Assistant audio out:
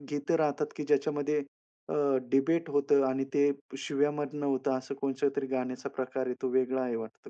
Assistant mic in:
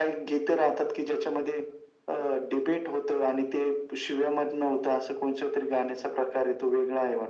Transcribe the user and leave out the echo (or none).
none